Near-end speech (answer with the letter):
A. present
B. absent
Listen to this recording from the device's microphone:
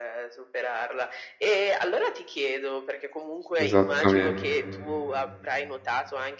A